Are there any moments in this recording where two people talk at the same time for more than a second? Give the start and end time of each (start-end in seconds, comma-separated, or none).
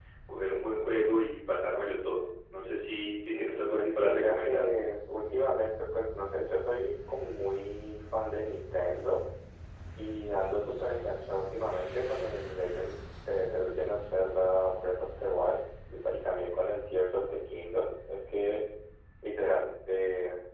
3.3-4.8